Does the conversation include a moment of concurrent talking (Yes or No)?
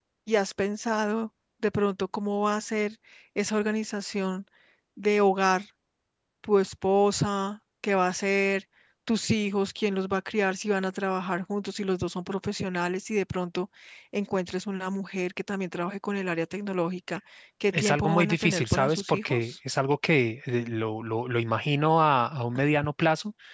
Yes